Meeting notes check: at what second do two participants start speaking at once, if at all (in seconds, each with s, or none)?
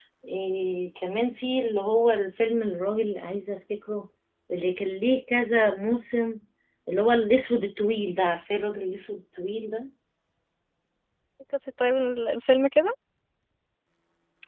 none